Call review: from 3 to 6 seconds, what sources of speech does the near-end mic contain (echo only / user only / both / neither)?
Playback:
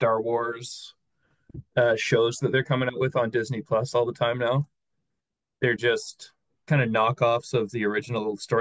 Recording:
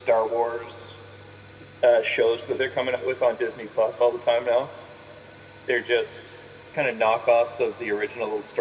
echo only